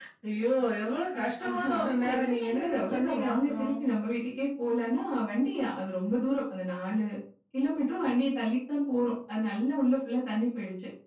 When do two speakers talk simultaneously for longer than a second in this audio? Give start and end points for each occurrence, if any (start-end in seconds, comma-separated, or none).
1.5-3.7